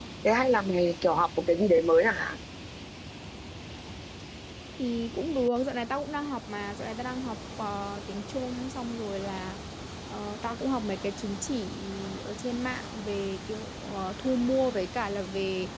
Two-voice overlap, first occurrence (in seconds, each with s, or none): none